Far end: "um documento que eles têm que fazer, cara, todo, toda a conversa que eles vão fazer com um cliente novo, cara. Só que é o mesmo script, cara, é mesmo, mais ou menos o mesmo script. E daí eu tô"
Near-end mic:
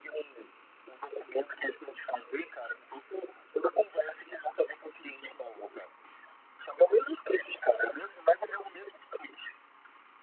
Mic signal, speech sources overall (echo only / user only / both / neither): echo only